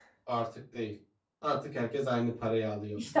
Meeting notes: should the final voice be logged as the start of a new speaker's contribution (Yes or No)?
Yes